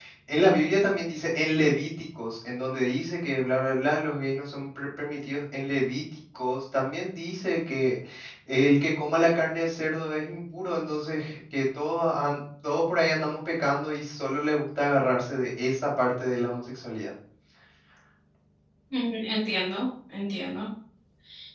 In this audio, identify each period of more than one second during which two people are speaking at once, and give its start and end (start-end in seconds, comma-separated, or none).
none